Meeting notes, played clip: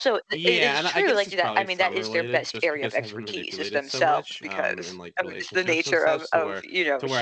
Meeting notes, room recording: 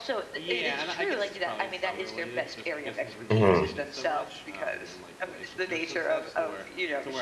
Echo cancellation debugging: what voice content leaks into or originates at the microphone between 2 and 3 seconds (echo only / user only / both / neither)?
echo only